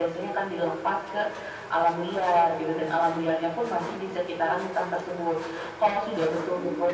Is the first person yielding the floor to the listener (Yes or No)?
No